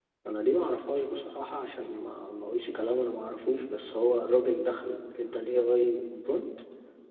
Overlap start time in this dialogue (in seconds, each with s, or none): none